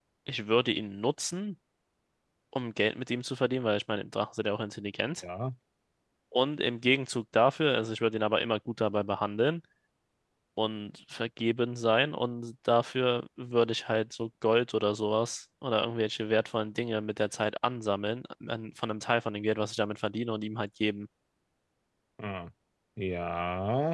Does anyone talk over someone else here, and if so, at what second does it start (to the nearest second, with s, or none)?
none